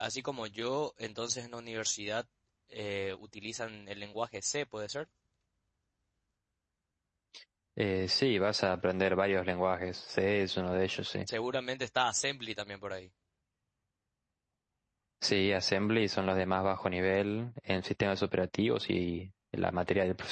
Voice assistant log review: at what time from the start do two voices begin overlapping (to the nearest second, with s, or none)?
none